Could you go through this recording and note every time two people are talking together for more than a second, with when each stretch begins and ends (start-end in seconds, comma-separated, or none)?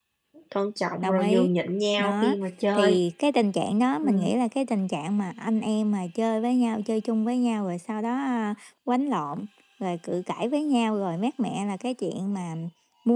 none